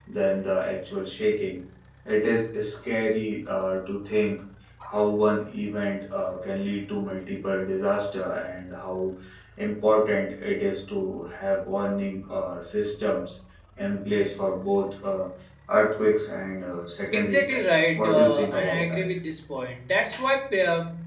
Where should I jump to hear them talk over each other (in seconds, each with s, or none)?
17.1 s